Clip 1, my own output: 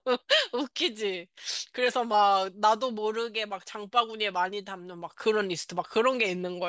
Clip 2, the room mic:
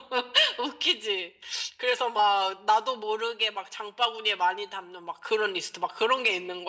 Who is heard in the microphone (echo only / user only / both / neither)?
echo only